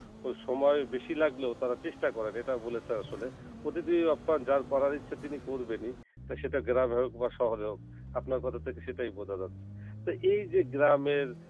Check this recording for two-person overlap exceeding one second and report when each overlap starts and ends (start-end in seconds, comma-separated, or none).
none